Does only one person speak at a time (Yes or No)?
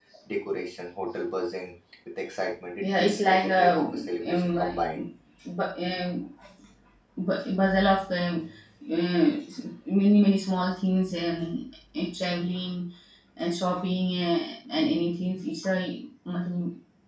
No